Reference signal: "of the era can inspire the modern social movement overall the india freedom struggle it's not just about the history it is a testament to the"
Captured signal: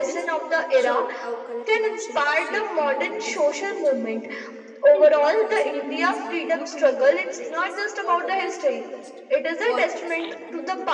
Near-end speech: present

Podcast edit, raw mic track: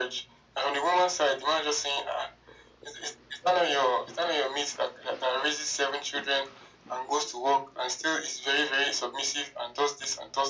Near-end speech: none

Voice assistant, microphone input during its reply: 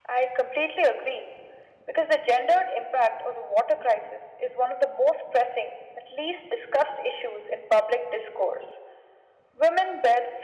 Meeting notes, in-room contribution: none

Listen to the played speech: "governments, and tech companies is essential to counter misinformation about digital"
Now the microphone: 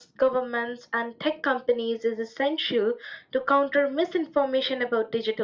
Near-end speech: none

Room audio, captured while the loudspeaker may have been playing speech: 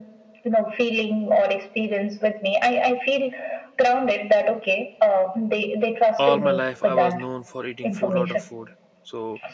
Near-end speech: present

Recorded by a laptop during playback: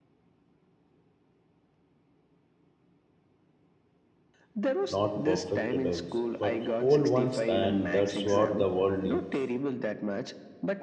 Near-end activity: present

